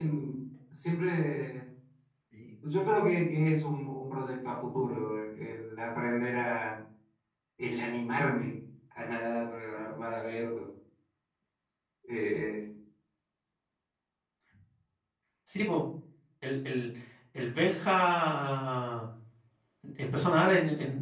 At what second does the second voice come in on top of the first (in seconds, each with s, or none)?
none